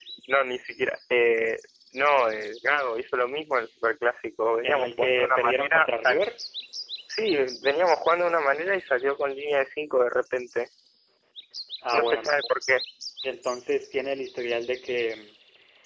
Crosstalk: present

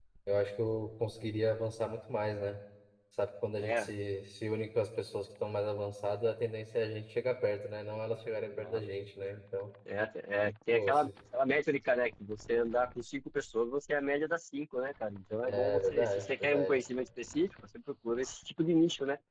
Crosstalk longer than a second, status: present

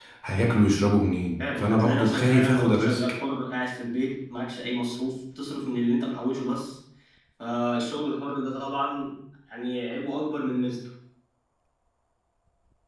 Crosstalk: present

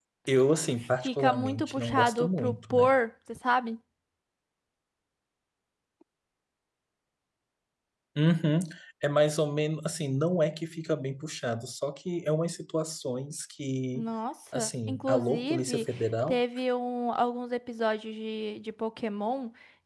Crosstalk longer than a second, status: present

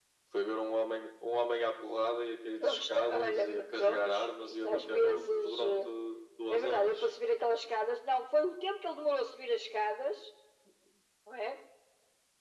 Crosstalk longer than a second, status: present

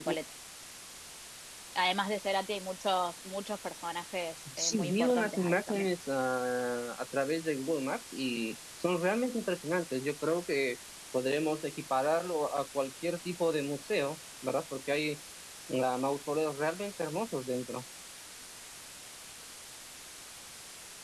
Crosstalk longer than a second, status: present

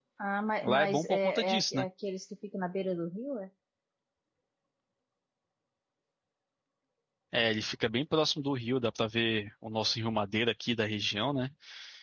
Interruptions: present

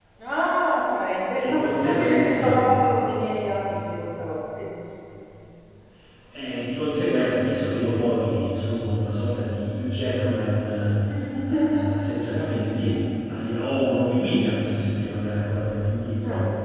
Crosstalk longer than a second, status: present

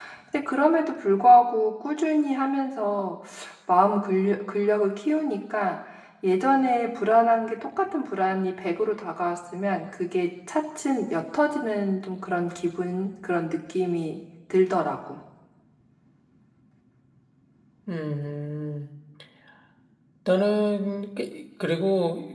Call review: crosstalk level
none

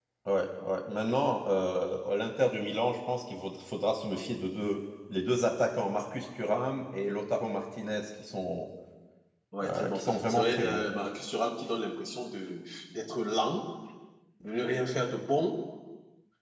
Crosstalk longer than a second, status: present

